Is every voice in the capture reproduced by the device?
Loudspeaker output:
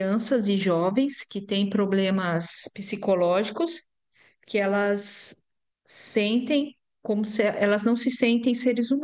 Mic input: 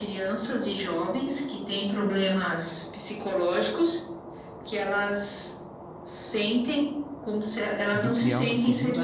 No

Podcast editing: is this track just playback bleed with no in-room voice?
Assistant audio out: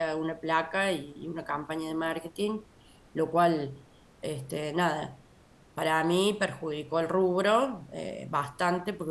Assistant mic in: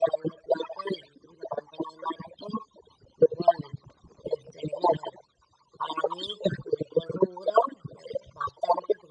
Yes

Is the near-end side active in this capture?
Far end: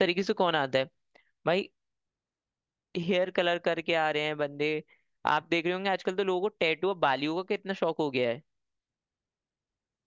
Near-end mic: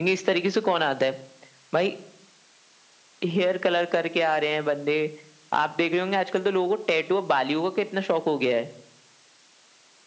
No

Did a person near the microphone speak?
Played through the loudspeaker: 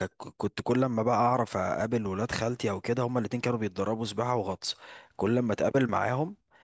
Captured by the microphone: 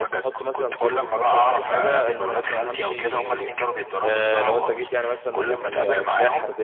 Yes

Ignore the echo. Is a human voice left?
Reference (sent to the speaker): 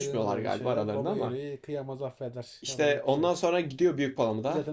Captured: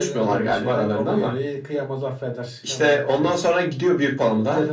No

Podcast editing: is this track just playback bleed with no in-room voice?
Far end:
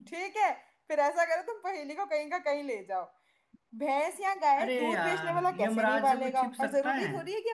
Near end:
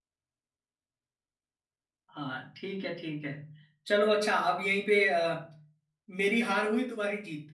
No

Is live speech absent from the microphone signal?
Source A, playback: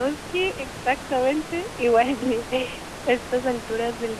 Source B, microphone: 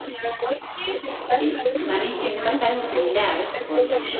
No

